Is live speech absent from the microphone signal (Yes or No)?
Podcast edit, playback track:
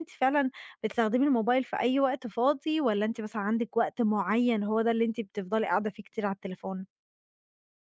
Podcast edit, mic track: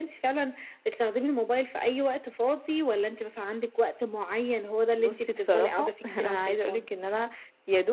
No